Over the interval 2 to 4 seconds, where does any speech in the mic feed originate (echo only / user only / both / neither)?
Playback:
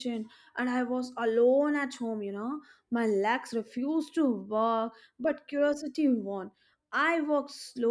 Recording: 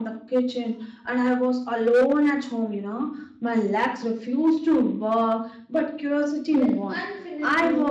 echo only